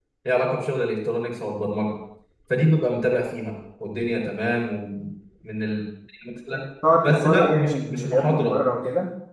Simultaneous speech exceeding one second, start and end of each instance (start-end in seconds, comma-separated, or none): 7.0-8.6